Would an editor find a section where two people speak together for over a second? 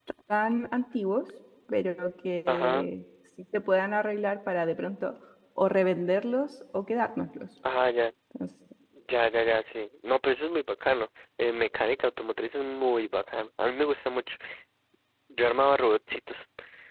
No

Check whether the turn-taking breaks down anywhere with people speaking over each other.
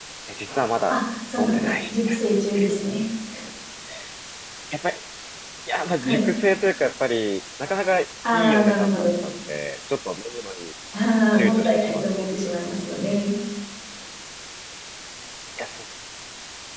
Yes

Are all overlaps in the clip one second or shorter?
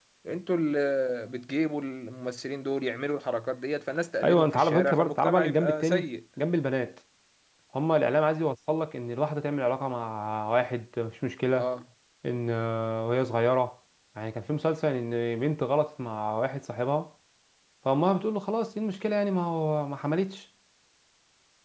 No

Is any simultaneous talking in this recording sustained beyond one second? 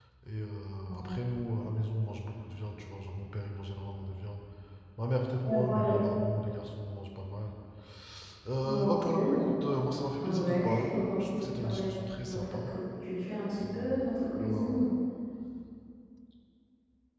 Yes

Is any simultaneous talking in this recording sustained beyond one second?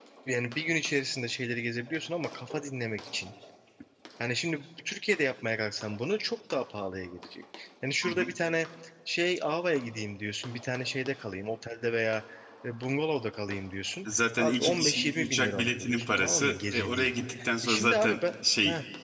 Yes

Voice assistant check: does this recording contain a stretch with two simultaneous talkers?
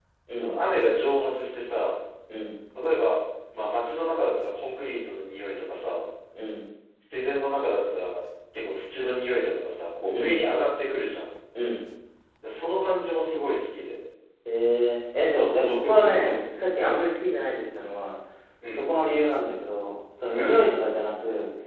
Yes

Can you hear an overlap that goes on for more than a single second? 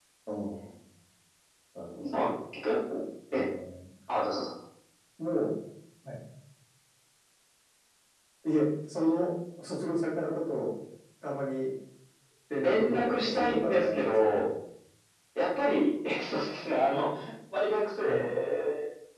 Yes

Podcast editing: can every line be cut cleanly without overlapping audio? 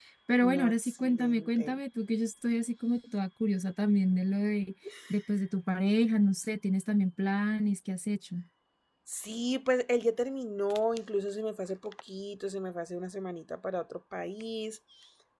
No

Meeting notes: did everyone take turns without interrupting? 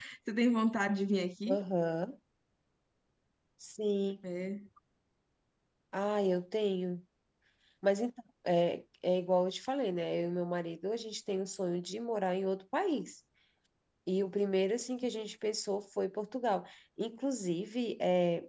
Yes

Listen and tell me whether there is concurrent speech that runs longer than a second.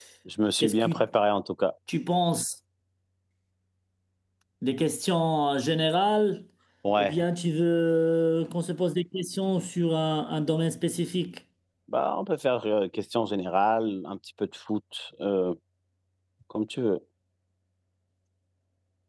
No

